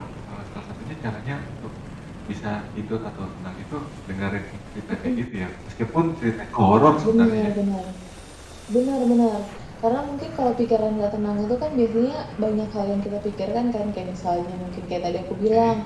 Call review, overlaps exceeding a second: none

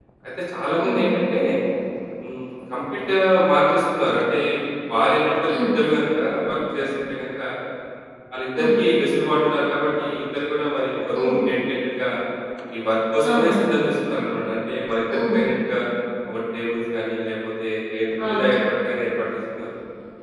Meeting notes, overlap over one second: none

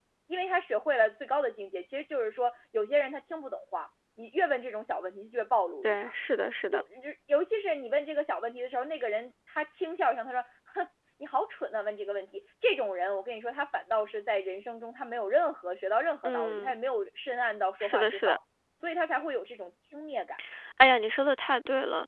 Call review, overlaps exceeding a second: none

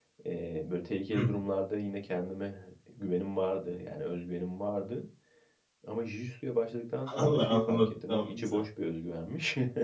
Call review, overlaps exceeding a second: present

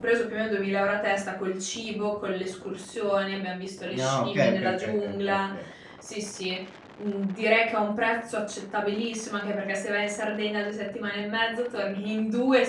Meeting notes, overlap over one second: present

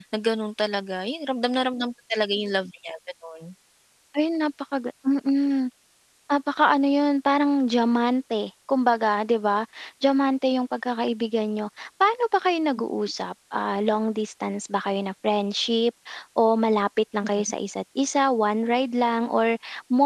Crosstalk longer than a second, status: none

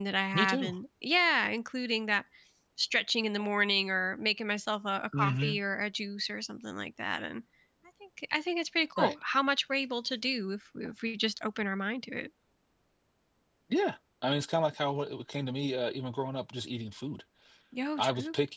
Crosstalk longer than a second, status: none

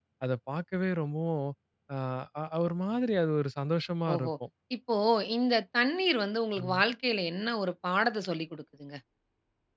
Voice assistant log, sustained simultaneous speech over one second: none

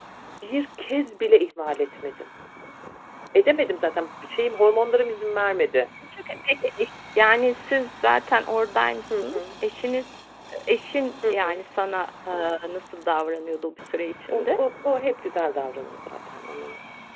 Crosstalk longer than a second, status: none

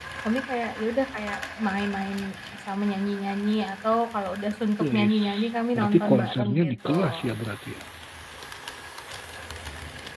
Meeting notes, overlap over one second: present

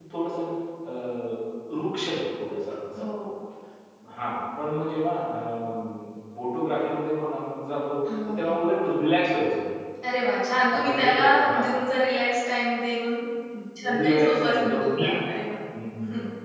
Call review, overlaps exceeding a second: present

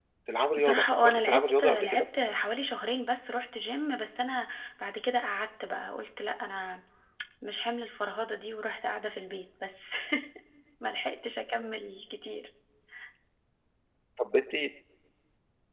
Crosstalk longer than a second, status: present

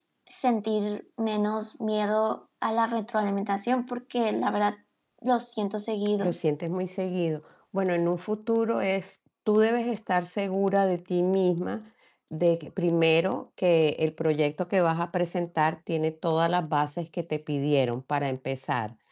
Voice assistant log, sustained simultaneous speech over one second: none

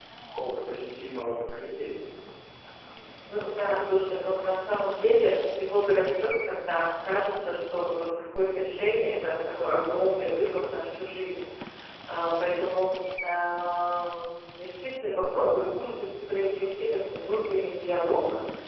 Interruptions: none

